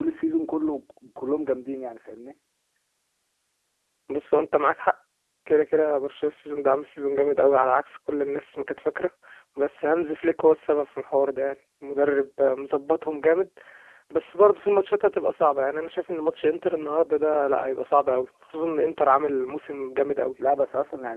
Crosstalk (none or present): none